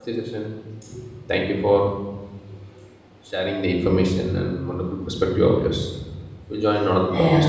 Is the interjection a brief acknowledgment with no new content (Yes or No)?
No